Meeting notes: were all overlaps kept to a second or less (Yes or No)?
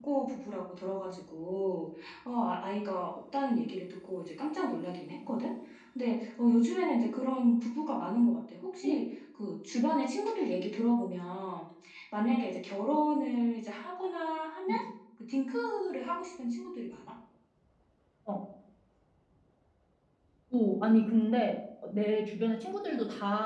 Yes